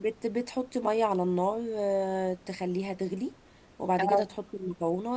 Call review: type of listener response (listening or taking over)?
listening